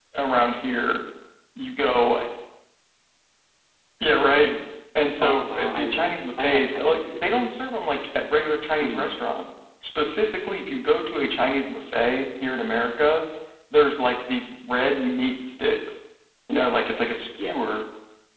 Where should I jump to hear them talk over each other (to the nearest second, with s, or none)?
5 s